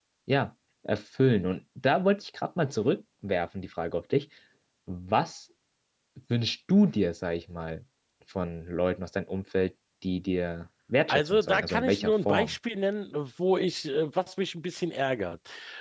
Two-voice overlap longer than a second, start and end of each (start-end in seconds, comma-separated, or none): 11.1-12.6